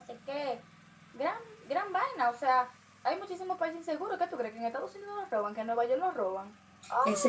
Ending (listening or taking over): taking over